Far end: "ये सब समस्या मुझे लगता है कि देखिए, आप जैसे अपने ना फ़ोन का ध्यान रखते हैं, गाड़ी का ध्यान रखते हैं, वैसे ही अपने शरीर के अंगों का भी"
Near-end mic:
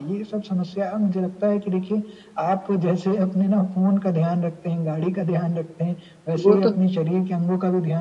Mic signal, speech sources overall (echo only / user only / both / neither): both